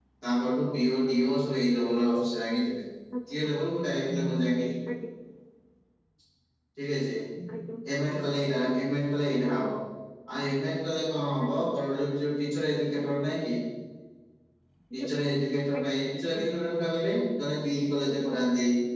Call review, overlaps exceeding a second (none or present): none